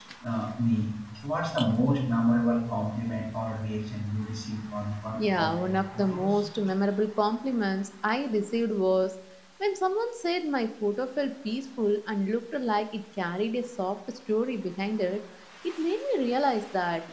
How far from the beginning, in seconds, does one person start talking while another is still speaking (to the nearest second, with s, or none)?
5 s